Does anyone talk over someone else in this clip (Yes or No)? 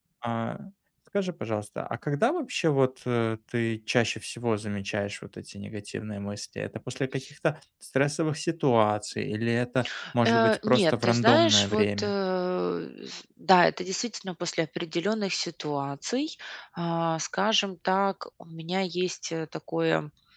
Yes